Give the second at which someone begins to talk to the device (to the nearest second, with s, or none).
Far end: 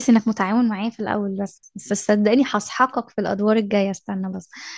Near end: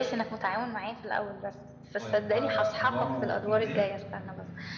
2 s